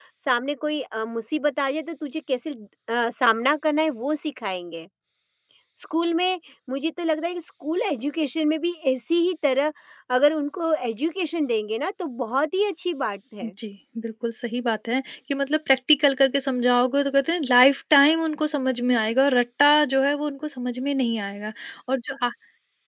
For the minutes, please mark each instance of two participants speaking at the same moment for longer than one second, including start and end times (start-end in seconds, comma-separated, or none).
none